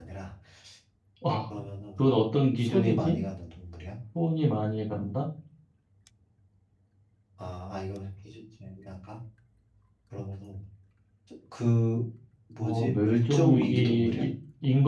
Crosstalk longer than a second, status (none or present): present